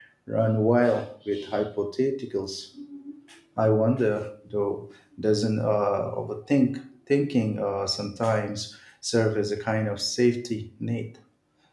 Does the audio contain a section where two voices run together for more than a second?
No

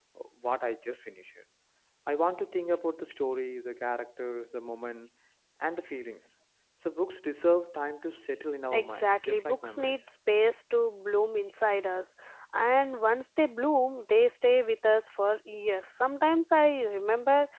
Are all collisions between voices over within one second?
No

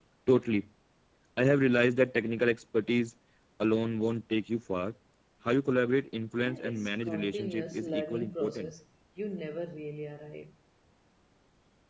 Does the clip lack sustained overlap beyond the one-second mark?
No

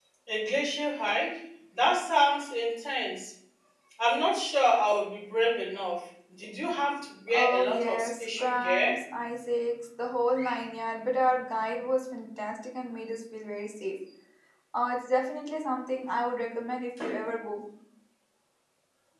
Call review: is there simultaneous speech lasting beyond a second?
Yes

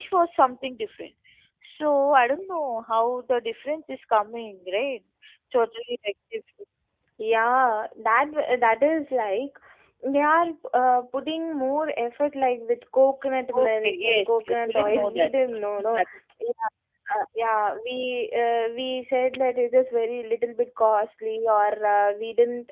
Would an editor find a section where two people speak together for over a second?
Yes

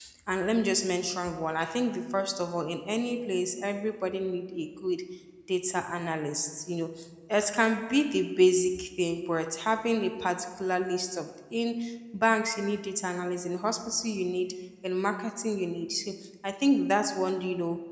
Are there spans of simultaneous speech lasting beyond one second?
No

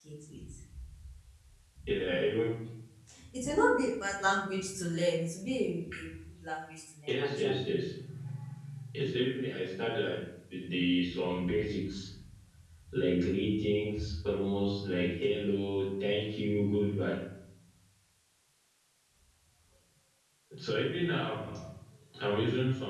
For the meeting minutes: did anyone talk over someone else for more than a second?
No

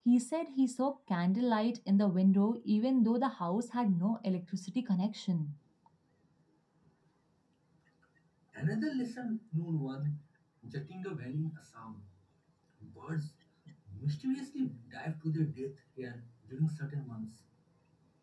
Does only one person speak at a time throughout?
Yes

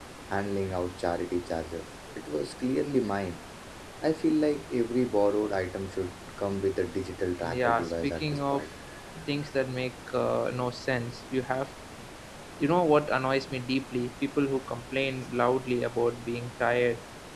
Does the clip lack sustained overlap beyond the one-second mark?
No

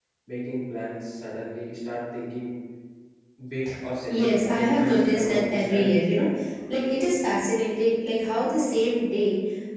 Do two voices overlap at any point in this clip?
Yes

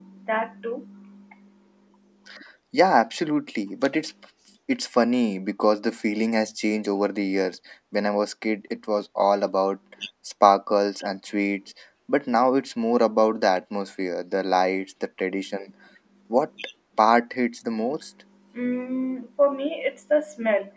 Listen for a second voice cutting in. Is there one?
No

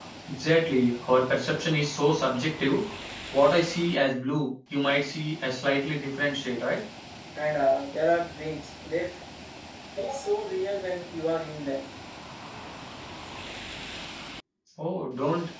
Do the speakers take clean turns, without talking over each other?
Yes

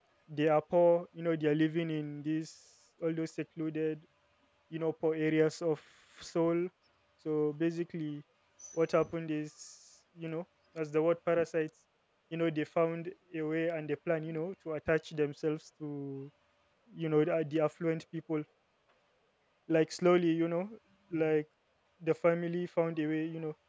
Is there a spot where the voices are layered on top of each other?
No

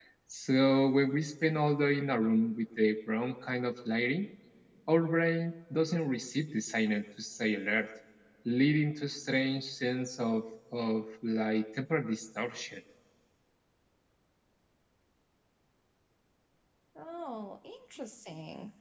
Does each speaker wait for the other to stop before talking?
Yes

